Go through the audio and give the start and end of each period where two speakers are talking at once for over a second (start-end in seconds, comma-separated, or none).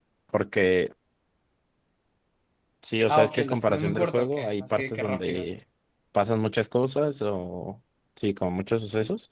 3.1-5.5